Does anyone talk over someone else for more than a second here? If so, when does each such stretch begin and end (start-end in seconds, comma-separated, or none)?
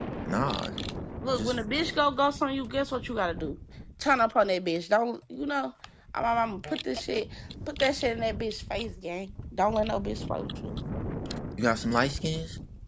none